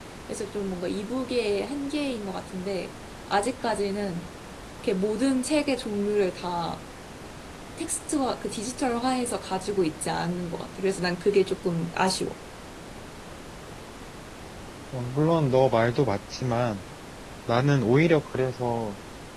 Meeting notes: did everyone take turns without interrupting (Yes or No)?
Yes